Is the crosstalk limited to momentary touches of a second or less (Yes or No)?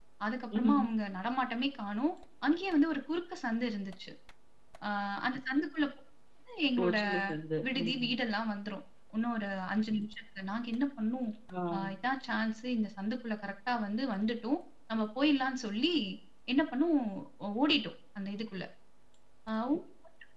Yes